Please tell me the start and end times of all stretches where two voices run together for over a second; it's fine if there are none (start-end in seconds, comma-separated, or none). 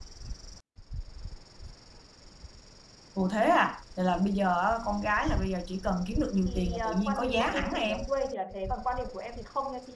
6.4-8.0